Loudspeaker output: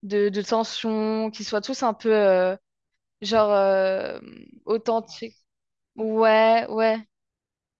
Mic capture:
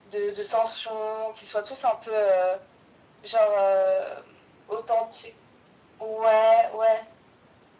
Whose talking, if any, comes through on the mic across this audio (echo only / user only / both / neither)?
echo only